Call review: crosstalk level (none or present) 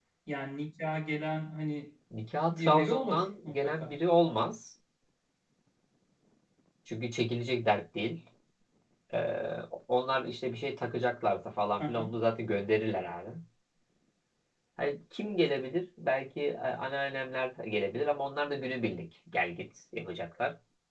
present